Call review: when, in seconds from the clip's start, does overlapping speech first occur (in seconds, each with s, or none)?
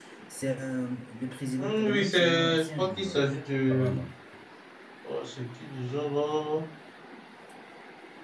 1.6 s